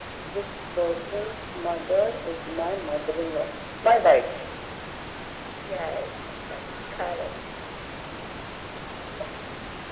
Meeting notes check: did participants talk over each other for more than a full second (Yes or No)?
No